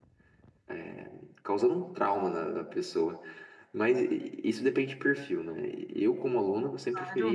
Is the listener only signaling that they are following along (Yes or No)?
Yes